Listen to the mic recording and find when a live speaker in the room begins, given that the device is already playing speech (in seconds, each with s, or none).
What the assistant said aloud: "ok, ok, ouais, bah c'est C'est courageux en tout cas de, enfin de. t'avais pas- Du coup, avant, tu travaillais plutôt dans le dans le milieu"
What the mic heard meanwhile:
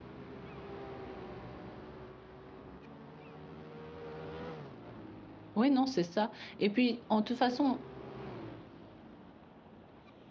5.5 s